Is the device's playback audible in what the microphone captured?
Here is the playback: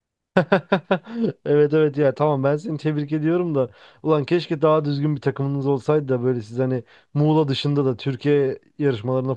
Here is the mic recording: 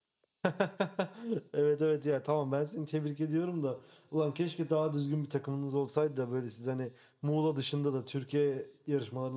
Yes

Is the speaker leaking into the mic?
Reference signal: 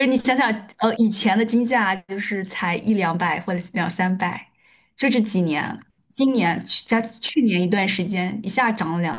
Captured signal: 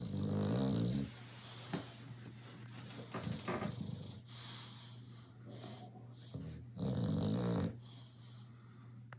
No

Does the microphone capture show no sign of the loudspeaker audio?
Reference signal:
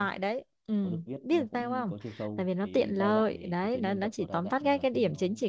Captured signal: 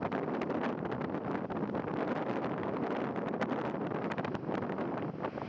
Yes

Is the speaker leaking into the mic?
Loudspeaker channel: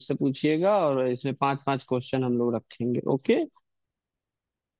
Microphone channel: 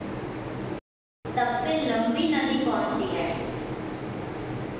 No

